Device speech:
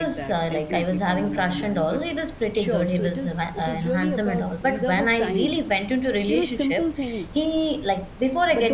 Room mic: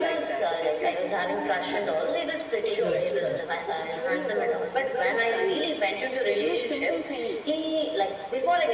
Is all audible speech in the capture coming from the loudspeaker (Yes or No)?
No